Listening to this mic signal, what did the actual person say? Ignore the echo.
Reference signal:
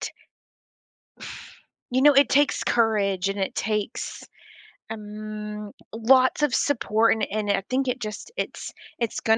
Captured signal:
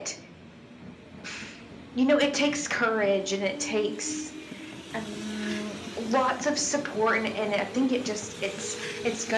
none

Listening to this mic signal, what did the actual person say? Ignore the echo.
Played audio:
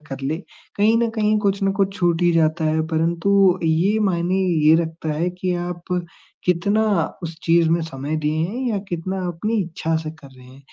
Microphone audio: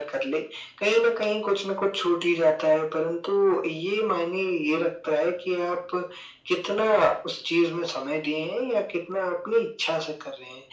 none

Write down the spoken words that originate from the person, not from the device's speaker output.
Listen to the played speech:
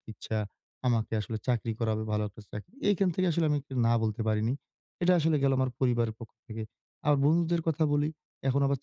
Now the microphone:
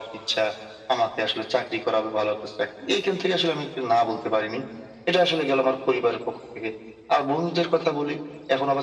none

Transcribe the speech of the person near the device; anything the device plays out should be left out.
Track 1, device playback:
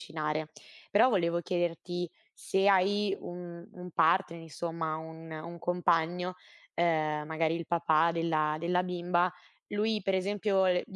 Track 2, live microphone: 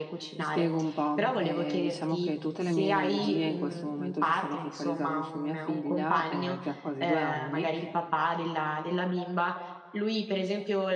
Ti spiego un po', eh, diciamo che tutte le mie energie in questo momento si stanno focalizzando su mia figlia, eh, che ha quasi due anni.

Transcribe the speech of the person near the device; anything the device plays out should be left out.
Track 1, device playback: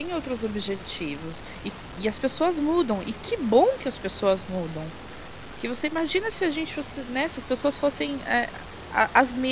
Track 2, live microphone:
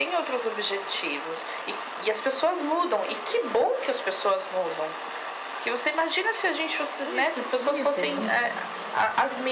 Não ia ser não ia ser ruim?

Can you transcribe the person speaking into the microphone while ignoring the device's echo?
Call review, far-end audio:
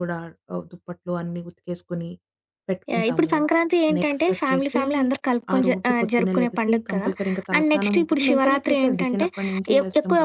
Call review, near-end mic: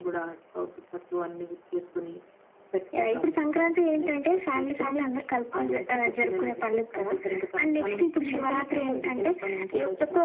none

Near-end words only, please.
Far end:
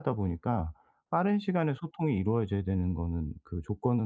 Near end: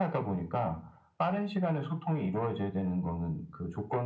none

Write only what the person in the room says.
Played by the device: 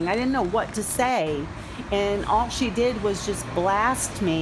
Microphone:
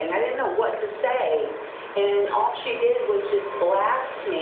none

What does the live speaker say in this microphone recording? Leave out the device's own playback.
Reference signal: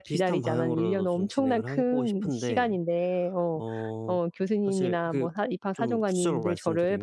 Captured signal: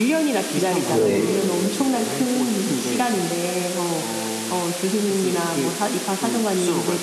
네네. 네.

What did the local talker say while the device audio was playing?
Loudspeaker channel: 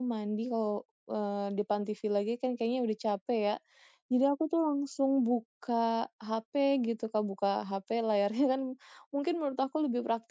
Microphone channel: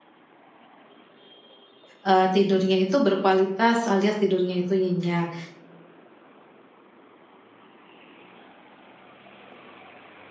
eee, tidurnya itu berkualitas alias tidurnya itu nyenyak.

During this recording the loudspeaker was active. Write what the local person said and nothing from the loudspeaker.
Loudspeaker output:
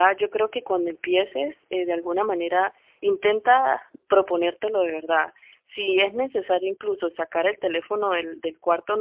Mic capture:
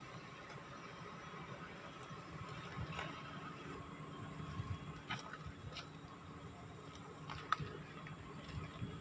none

